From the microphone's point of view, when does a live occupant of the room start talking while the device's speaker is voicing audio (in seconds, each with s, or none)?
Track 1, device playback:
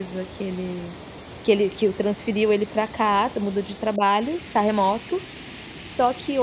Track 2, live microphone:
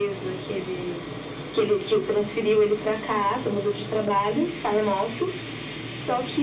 none